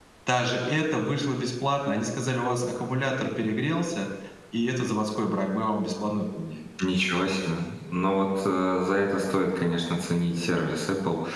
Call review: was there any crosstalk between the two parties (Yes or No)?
No